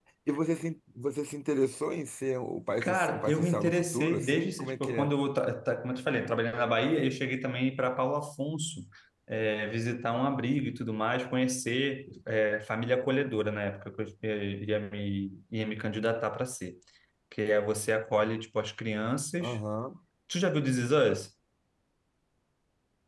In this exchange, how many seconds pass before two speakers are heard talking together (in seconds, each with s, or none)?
2.8 s